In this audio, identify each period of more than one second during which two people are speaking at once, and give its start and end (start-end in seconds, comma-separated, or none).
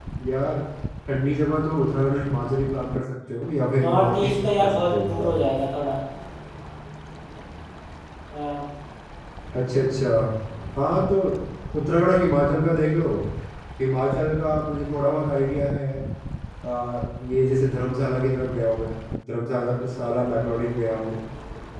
3.8-5.4